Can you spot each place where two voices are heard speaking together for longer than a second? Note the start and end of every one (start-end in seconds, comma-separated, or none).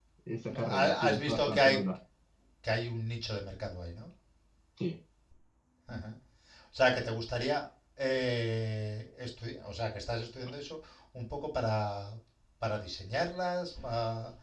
0.6-1.8